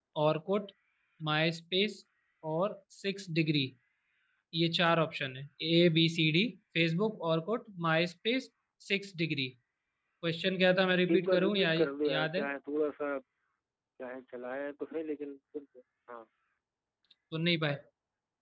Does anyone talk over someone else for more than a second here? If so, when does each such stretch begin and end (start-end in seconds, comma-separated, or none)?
11.1-12.4